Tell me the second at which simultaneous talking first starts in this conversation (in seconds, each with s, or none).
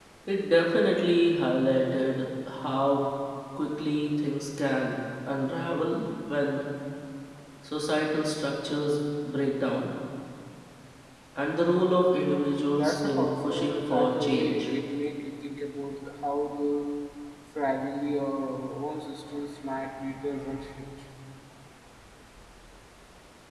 12.7 s